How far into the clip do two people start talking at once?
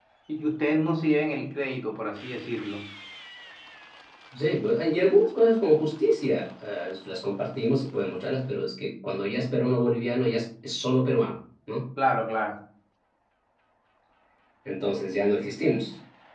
none

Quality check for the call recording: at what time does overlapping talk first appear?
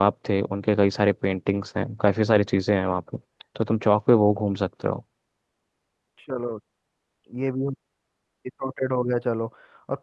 none

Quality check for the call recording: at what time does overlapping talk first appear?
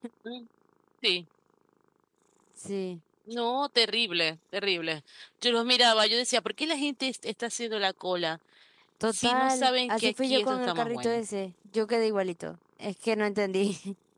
9.1 s

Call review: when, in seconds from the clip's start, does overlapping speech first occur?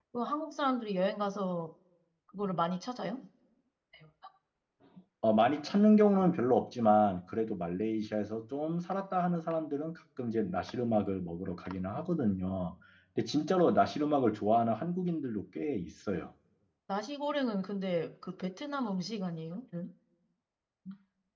none

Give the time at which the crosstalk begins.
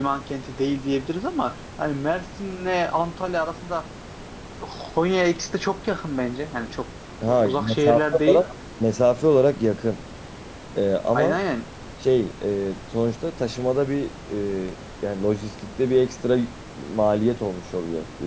7.2 s

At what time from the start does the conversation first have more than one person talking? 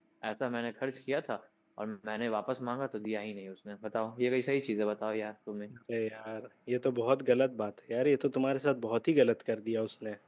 none

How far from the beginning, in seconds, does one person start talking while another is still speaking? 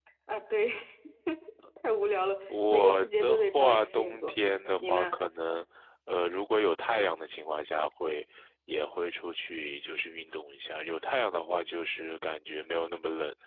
2.7 s

